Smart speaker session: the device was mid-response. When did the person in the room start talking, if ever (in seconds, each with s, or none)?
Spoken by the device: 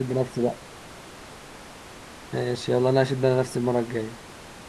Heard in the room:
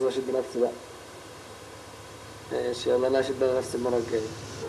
none